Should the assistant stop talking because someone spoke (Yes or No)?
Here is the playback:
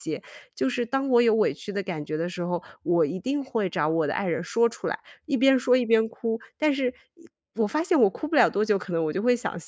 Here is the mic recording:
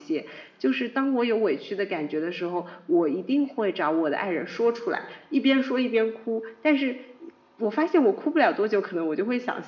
No